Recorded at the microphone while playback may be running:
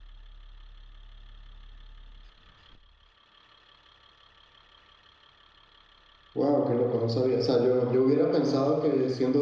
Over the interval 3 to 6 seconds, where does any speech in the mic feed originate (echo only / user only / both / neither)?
neither